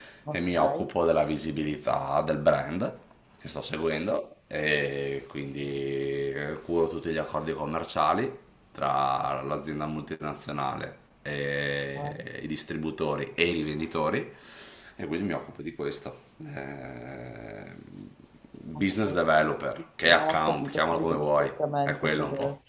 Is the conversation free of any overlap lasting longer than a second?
No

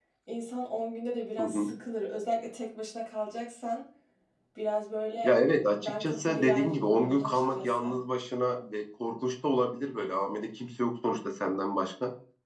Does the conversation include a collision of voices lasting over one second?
Yes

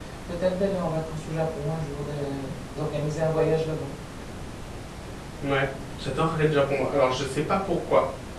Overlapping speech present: No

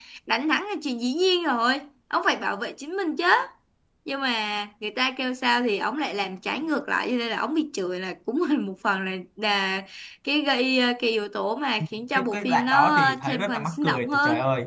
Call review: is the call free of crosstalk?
No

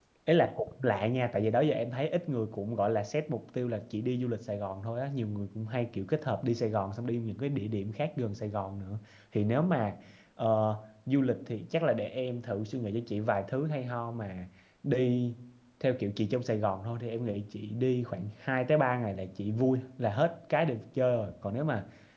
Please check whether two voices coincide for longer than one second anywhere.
No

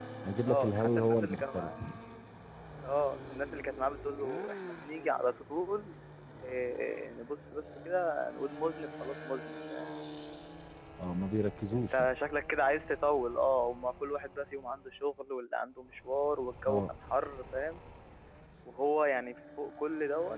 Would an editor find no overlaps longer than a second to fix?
No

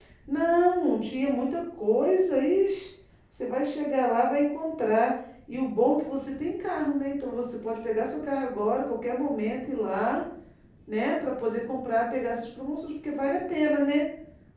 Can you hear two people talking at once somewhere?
No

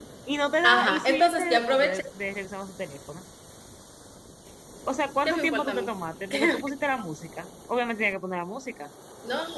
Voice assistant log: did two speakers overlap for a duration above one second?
Yes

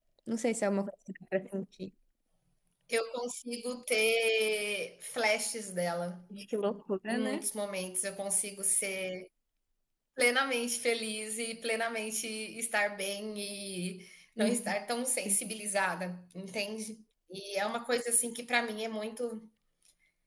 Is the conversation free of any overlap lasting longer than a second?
Yes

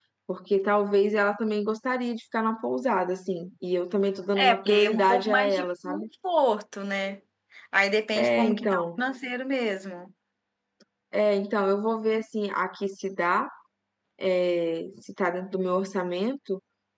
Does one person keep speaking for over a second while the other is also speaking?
Yes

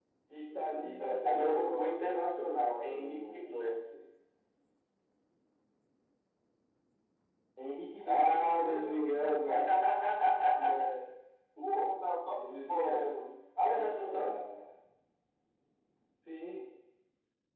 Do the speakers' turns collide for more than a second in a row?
Yes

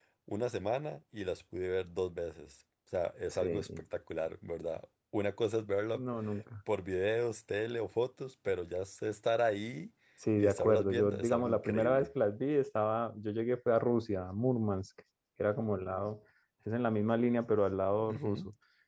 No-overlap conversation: No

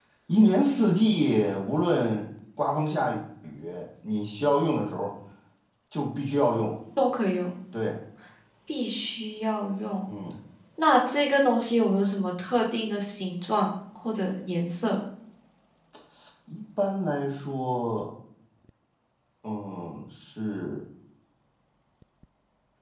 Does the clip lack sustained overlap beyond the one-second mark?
Yes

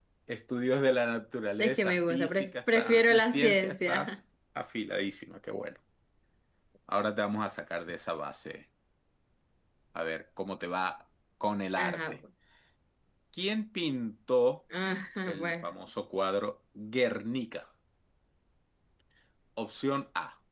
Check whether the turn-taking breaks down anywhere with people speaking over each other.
Yes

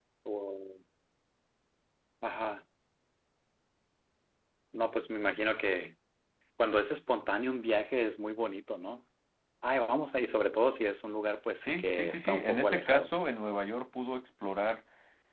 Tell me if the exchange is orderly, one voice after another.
No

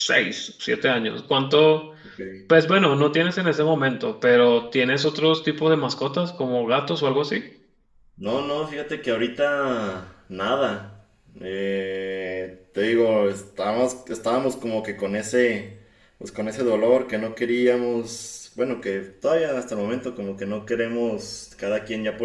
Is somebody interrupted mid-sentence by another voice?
No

